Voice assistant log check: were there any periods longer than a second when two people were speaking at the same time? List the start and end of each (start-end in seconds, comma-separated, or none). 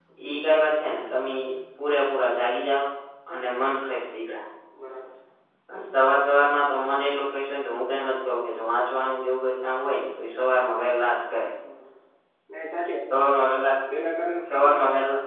none